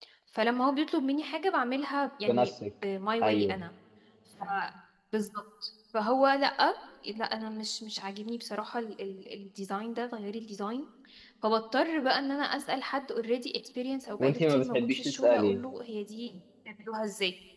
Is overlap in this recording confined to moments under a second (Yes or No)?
No